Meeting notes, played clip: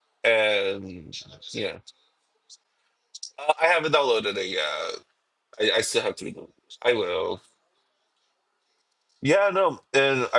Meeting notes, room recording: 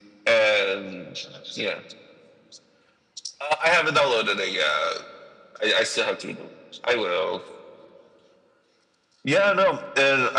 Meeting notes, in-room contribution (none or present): none